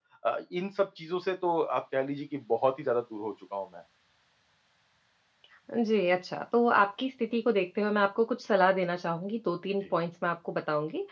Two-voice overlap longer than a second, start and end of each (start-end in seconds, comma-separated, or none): none